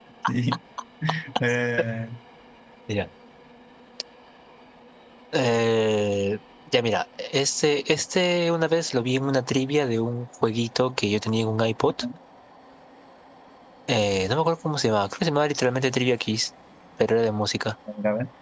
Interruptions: none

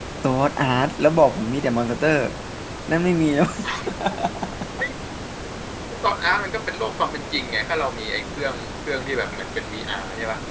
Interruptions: none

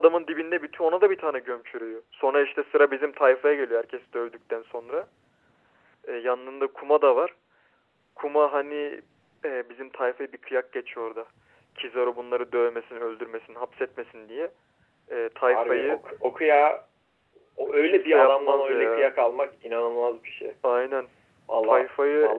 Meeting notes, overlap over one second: present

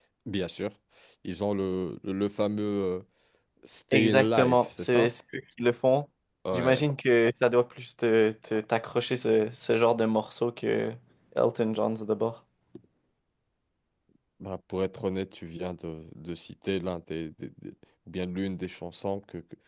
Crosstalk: present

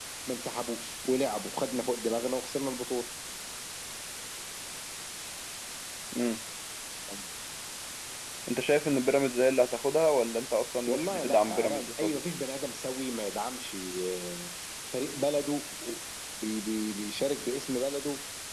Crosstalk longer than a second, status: present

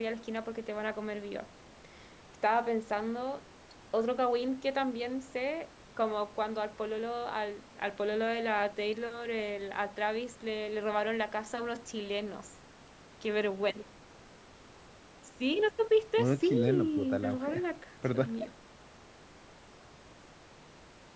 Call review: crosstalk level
present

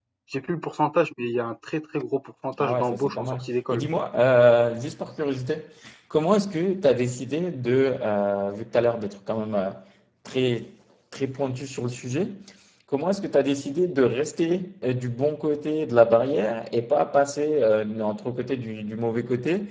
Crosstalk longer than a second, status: present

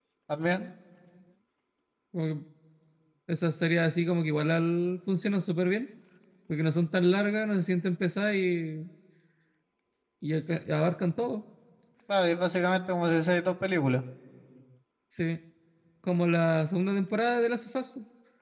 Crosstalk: none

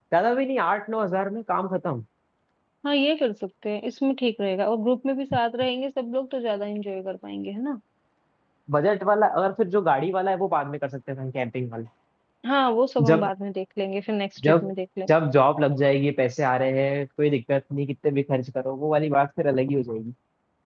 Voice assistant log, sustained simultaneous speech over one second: none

